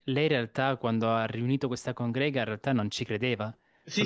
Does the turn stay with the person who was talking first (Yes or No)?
No